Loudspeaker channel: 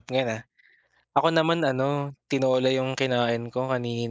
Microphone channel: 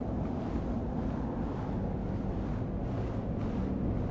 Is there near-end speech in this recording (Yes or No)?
No